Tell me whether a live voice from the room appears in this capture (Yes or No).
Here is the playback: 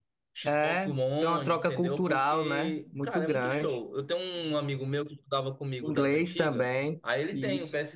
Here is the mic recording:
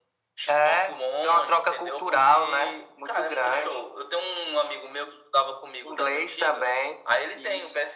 No